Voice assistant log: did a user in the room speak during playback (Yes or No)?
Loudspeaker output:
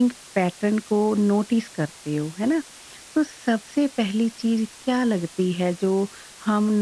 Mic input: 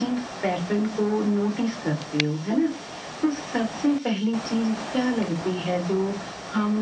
No